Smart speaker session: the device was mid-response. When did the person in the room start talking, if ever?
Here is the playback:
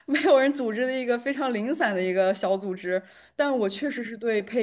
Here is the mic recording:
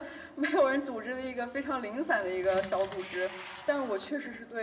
none

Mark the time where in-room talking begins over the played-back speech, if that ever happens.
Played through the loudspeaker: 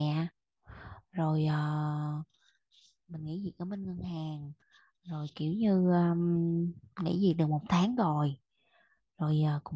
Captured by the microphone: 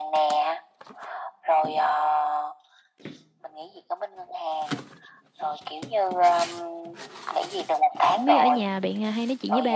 8 s

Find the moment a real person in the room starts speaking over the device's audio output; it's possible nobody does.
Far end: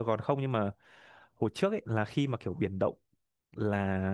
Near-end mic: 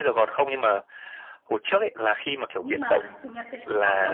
3 s

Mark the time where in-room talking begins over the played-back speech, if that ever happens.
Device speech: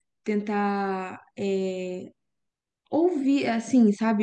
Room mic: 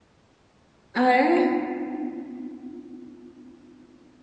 1 s

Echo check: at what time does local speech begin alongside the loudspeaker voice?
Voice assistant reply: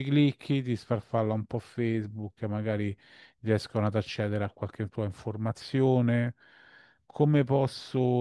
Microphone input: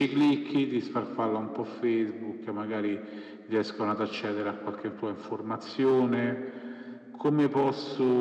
none

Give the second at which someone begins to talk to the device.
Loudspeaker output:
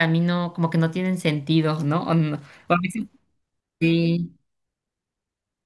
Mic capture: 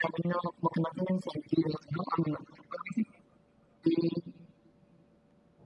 none

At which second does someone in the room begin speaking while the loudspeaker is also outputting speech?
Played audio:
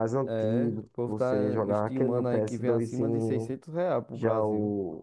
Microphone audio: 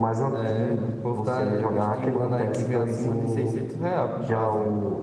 none

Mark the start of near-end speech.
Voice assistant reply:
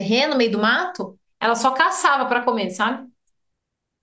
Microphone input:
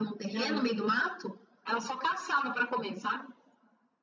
0 s

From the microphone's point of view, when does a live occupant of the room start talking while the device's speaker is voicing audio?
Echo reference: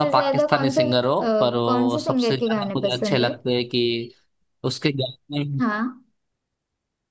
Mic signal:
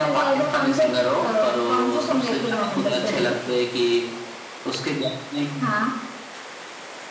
none

